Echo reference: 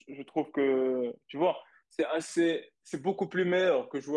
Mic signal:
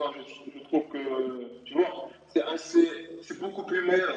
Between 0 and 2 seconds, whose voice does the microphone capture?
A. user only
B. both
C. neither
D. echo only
D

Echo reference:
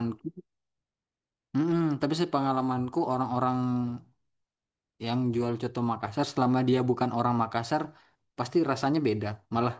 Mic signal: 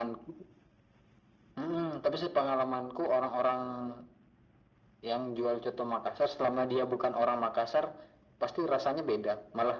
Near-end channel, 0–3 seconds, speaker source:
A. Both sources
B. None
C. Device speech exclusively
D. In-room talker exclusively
C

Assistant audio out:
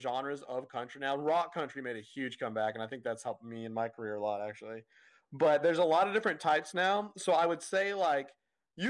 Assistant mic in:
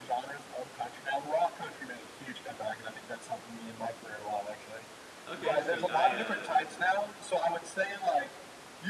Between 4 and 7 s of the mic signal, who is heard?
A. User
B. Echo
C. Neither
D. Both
D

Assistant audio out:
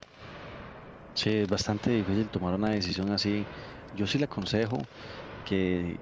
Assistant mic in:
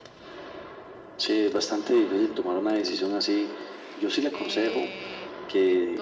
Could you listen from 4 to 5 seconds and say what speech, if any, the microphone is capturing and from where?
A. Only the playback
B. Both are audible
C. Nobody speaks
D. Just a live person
B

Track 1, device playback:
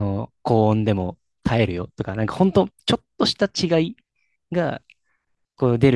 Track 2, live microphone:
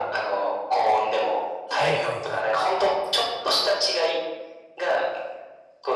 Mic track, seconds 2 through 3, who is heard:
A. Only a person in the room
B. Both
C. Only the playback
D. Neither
B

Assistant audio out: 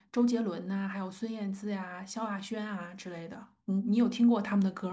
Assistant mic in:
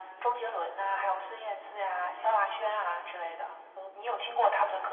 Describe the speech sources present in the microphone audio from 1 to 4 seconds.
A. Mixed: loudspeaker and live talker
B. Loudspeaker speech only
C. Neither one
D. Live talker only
B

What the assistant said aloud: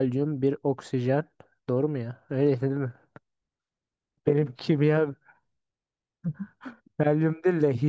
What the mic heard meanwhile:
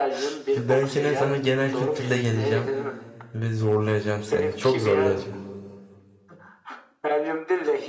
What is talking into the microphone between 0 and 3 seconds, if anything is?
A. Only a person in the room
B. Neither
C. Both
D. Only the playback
C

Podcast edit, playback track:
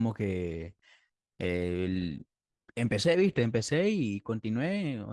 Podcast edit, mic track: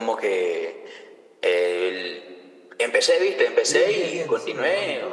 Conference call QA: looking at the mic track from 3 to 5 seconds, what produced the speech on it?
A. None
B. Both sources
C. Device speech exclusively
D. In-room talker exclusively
B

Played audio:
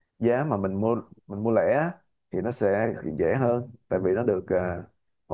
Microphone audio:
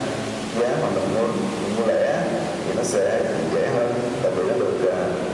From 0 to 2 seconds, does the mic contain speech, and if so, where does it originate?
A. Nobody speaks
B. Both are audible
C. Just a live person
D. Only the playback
D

